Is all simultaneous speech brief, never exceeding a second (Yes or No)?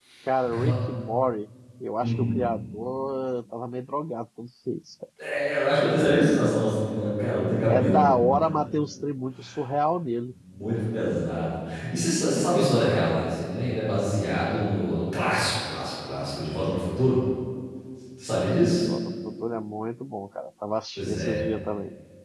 Yes